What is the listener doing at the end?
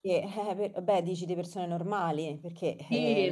taking over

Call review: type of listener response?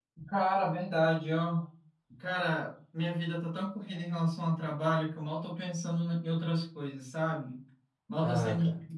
listening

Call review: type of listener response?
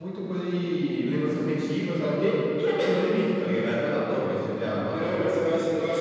taking over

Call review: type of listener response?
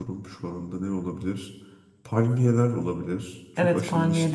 taking over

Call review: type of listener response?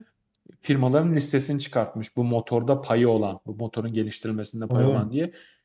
listening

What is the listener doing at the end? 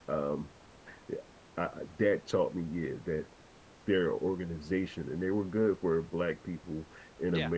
listening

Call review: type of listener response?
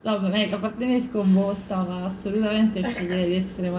listening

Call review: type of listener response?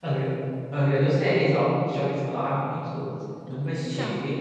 listening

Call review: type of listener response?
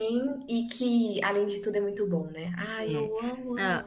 taking over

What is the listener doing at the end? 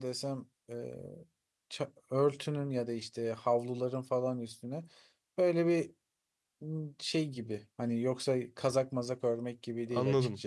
taking over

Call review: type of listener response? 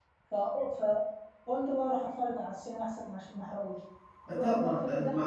taking over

